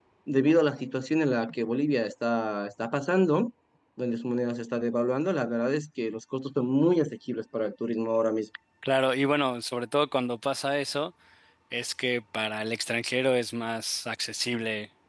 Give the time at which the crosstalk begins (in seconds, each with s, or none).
none